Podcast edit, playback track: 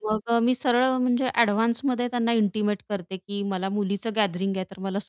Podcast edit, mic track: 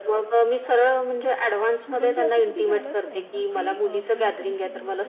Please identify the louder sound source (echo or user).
echo